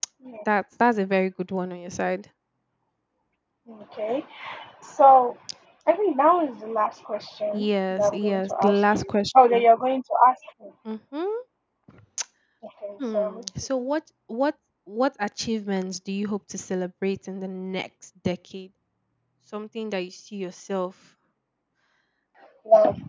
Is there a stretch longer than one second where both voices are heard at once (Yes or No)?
Yes